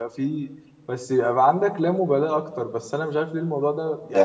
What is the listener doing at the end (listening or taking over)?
listening